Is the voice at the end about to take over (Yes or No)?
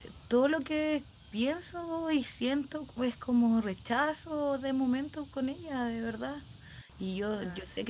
No